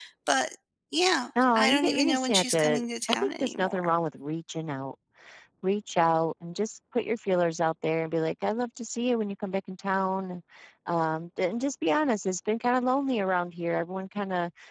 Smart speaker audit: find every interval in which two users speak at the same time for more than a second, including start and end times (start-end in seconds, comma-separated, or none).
1.6-3.9